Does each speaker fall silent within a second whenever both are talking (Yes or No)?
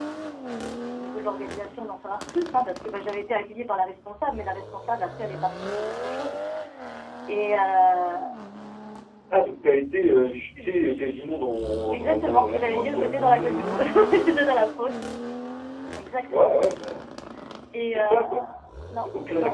No